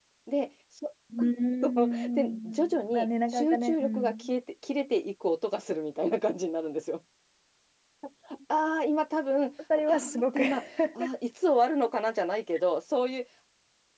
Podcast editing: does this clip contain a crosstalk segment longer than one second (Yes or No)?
Yes